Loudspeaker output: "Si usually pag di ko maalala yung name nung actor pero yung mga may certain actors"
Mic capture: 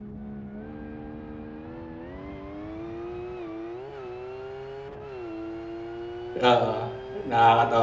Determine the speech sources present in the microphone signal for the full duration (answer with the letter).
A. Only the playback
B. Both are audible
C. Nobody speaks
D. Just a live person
D